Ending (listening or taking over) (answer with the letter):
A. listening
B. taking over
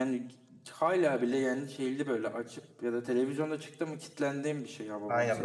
B